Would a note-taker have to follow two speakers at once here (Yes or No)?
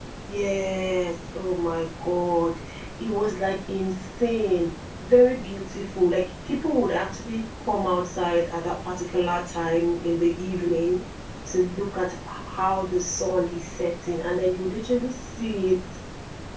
No